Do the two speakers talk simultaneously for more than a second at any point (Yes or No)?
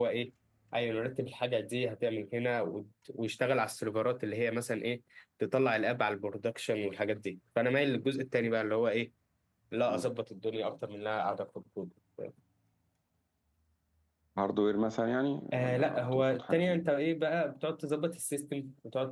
Yes